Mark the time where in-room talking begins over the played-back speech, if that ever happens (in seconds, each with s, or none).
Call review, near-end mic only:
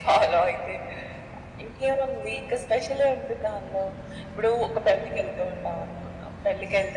none